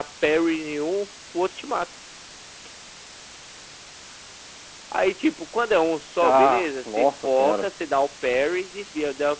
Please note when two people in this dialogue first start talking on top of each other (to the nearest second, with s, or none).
6 s